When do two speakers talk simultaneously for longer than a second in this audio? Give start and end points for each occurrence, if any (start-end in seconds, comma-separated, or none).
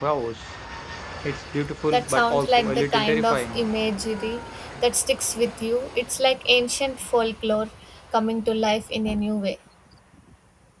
1.9-3.6